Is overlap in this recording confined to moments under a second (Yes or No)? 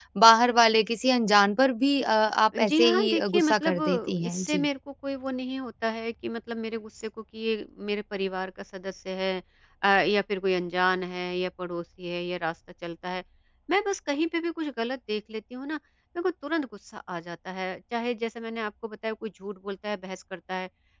No